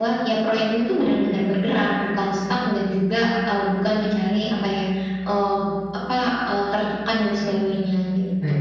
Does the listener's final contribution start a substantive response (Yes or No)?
Yes